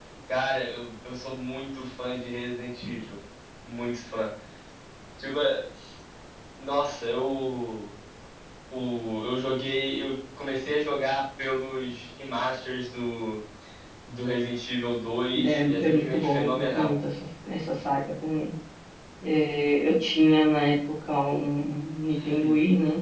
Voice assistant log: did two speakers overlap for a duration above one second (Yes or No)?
Yes